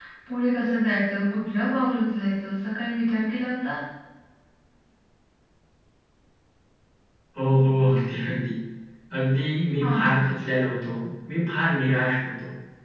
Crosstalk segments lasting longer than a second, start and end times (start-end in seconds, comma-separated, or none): none